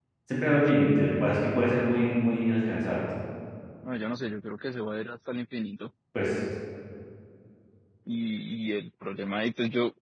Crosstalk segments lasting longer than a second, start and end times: none

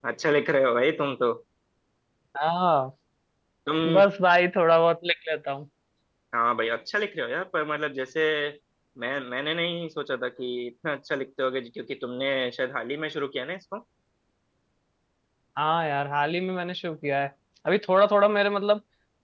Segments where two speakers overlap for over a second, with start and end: none

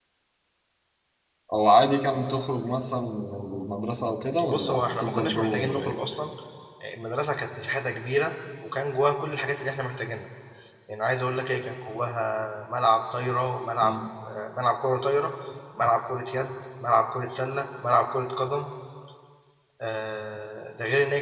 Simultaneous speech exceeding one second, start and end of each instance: 4.5-6.0

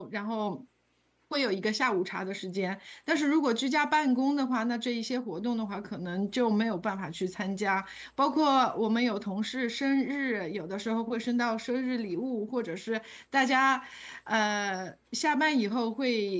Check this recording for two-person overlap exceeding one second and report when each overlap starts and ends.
none

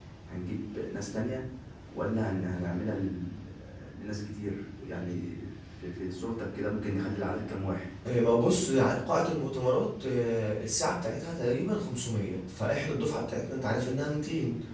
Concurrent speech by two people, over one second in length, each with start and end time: none

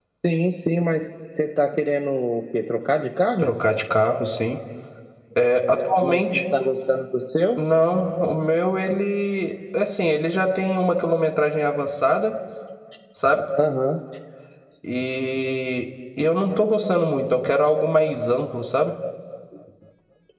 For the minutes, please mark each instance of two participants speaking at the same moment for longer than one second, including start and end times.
none

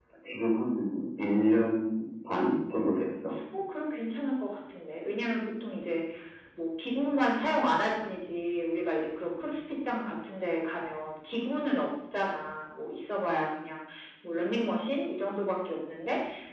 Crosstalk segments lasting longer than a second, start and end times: none

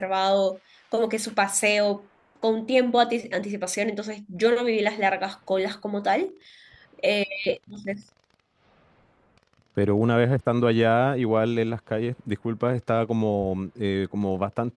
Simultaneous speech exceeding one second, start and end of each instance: none

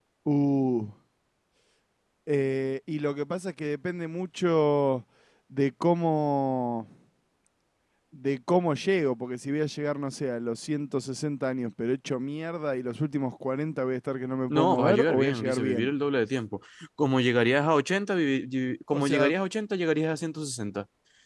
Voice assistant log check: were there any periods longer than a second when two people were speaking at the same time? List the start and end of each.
14.5-15.9

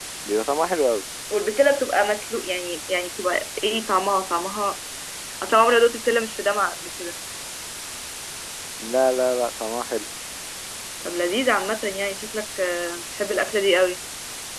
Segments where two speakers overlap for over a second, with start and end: none

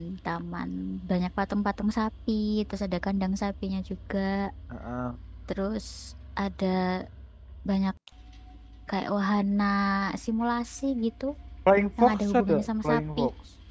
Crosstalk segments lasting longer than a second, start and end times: 12.0-13.2

